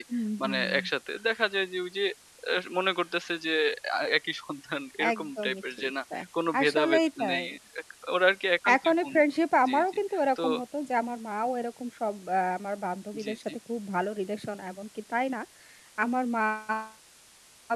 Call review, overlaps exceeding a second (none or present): present